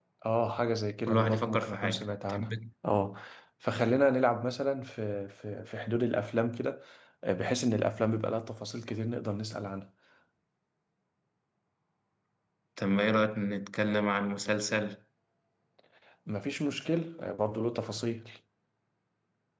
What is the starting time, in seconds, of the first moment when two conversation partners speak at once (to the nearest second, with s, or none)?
1 s